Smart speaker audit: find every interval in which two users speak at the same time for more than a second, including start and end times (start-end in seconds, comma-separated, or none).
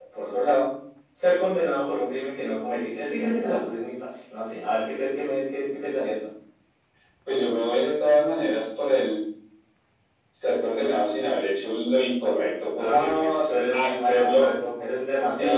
12.8-14.5